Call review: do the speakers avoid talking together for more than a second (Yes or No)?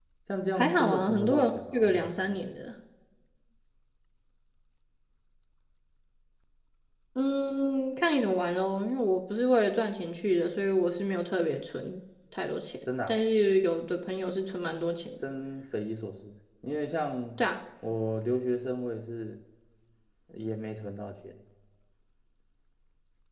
No